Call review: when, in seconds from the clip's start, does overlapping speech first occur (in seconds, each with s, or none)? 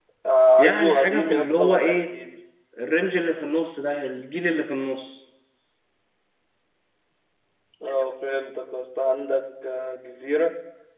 0.6 s